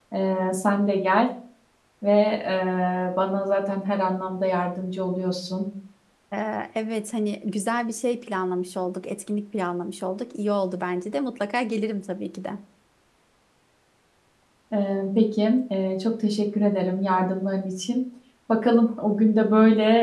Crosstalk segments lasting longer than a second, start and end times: none

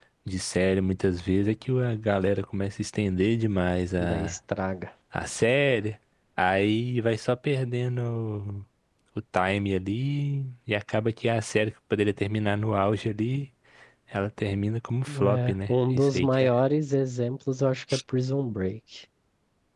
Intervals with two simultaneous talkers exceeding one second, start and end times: 15.1-16.5

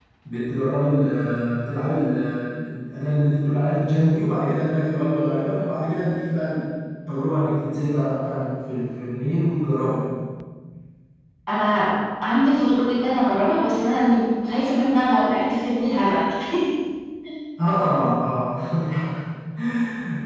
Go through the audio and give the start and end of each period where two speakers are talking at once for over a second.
none

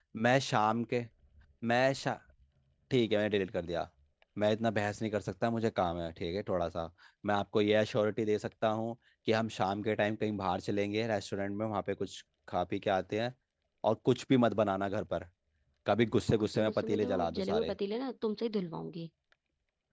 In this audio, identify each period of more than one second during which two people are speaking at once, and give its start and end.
16.4-17.8

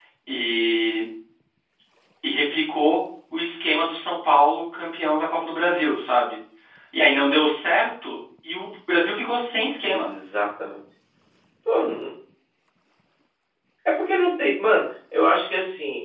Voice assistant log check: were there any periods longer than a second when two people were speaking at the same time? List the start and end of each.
none

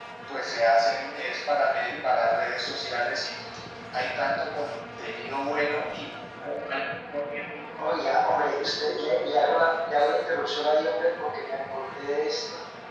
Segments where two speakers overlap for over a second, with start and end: none

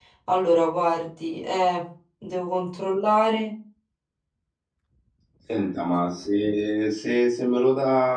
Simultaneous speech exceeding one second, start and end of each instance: none

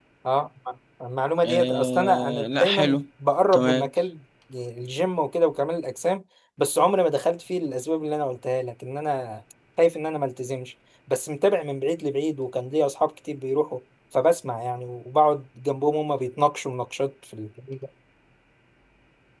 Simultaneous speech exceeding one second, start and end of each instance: 1.4-3.0

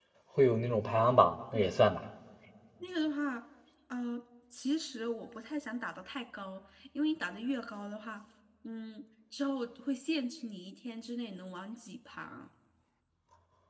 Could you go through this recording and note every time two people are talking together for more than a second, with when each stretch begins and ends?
none

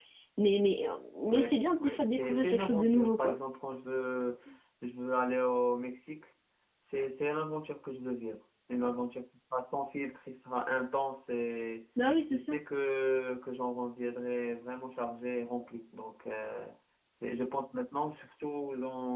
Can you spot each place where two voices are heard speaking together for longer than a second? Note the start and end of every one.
1.8-3.4

